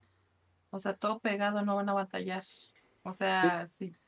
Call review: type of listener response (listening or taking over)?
listening